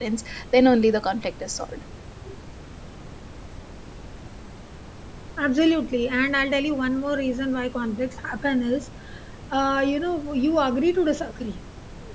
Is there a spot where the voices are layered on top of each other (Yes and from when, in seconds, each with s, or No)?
No